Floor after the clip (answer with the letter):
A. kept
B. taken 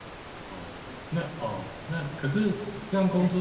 A